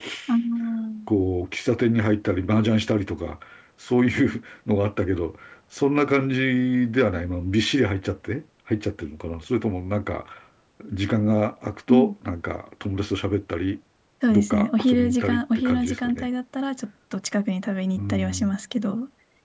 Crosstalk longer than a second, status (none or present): present